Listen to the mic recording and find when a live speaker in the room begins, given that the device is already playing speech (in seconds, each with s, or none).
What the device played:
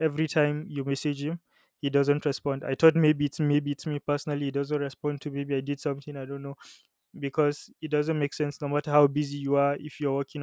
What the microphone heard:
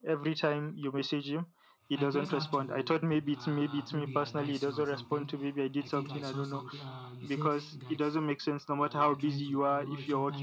1.9 s